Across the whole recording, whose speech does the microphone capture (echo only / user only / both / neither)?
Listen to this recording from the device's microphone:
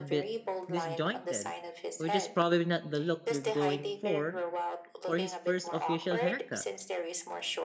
both